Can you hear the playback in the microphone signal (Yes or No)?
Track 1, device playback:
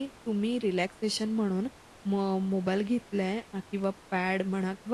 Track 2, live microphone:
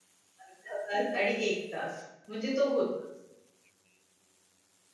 No